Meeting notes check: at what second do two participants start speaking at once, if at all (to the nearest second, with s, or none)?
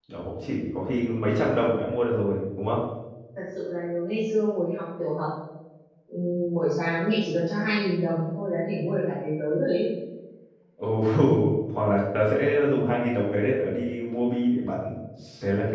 none